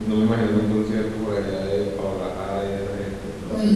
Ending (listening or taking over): taking over